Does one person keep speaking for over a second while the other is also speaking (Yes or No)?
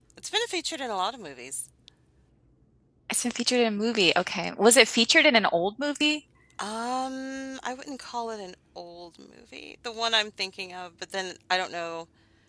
No